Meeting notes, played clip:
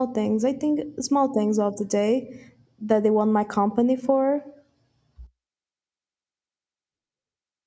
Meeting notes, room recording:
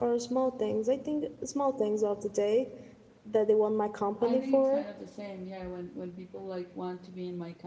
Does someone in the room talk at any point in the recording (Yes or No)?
Yes